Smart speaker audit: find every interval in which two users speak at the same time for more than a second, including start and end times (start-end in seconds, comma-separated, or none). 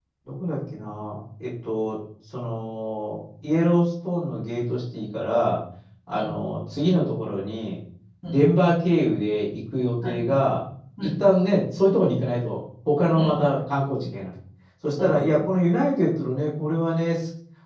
none